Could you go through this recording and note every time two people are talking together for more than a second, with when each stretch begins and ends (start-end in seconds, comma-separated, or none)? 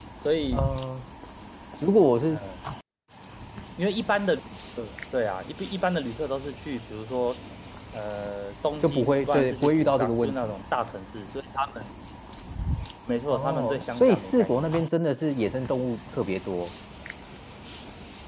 8.8-10.5, 13.3-14.7